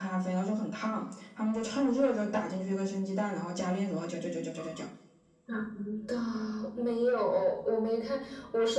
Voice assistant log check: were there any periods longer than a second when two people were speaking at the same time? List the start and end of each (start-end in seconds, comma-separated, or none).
none